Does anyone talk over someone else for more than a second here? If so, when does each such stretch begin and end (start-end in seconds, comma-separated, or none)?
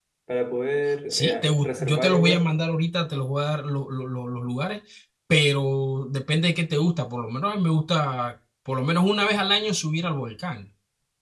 1.1-2.5